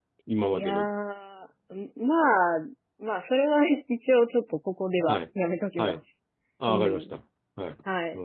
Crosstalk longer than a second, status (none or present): none